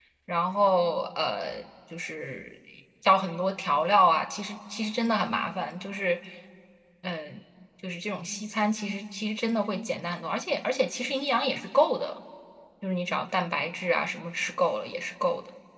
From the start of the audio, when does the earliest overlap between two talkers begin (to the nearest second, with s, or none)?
none